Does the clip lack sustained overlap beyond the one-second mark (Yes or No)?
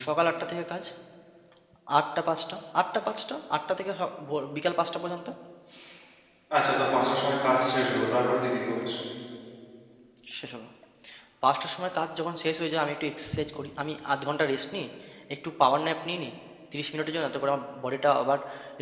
Yes